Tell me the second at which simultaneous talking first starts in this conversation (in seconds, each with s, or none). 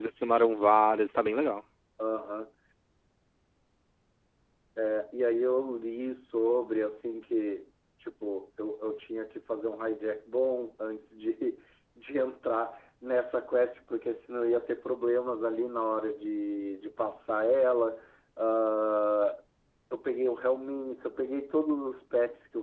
none